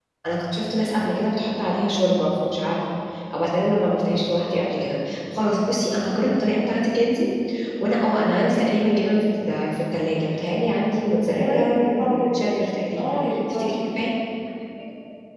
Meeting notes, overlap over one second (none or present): present